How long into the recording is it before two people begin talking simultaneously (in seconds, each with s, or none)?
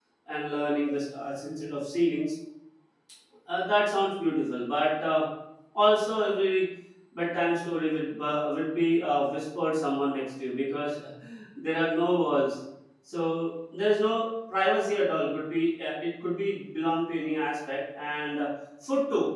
none